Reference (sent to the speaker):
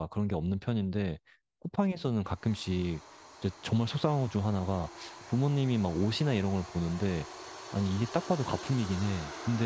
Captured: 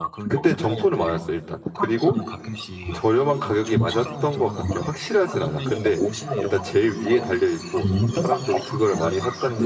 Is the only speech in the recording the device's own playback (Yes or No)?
No